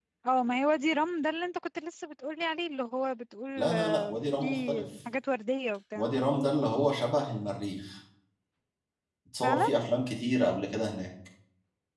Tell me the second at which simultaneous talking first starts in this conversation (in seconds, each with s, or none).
3.6 s